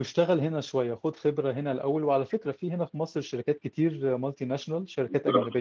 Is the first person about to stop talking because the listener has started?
No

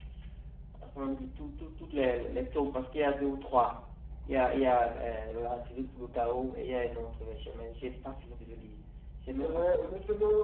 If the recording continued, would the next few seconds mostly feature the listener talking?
Yes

